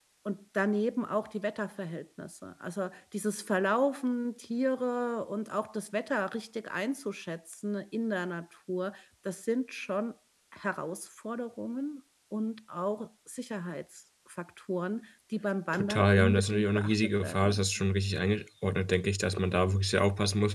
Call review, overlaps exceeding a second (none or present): present